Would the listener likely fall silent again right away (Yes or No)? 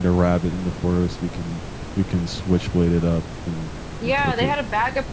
No